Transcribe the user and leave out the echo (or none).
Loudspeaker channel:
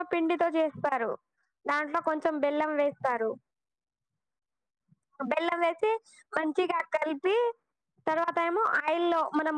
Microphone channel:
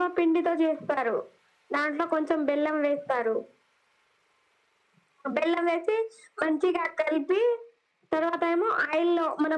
none